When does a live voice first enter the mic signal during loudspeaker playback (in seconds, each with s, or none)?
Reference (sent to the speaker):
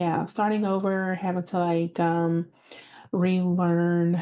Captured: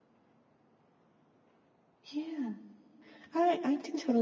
2.1 s